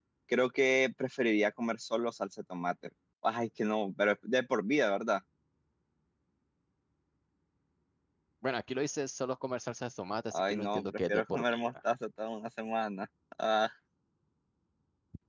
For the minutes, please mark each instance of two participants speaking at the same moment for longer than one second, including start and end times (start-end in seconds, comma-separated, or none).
10.3-11.7